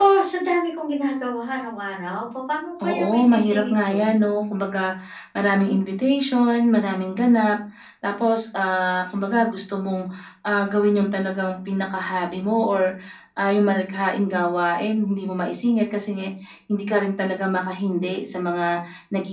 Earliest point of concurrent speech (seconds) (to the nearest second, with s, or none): 3 s